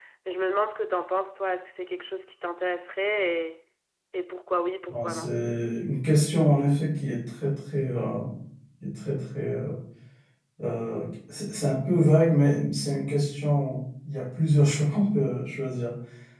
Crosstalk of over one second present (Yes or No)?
No